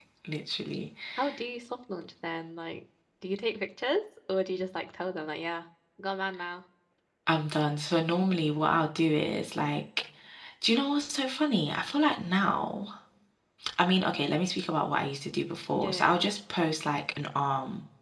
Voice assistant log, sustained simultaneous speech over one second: none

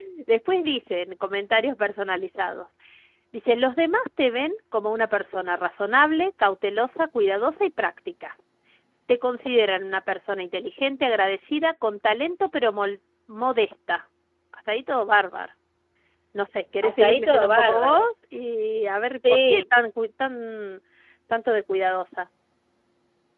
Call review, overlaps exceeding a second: present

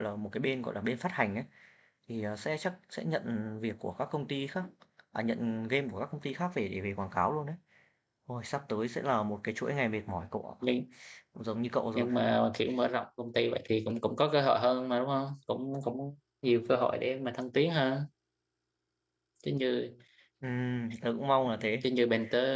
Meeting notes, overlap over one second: none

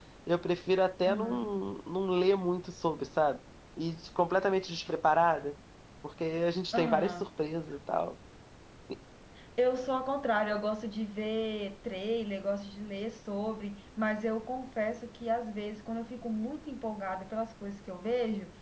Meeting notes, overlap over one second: none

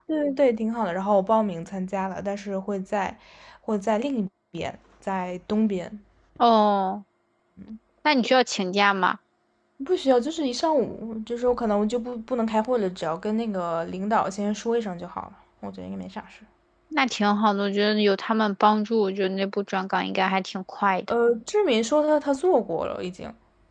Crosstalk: none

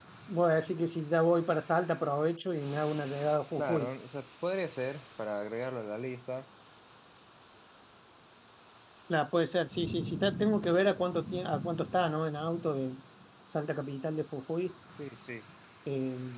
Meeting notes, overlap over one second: none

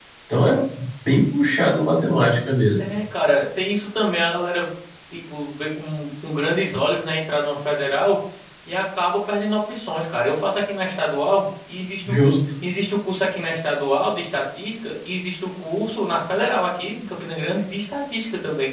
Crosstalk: none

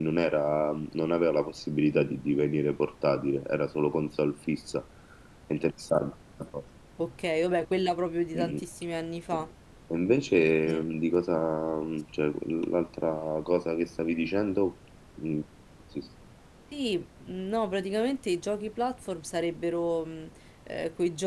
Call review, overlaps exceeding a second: none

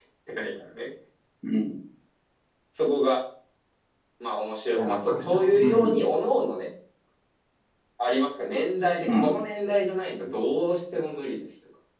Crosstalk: present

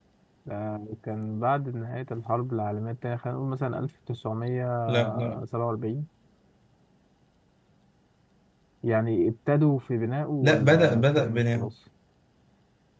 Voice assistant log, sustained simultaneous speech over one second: present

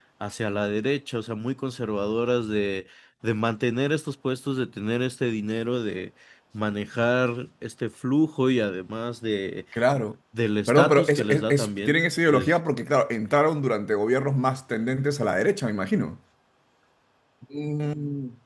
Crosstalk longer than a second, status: present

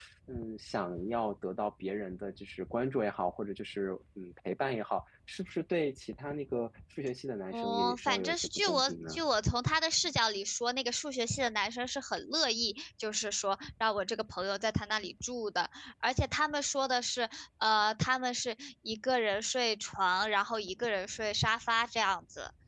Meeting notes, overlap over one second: present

